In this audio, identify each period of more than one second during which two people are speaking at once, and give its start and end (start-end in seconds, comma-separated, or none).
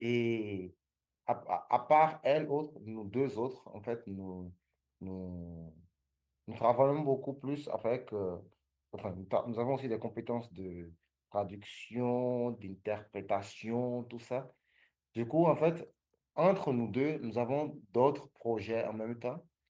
none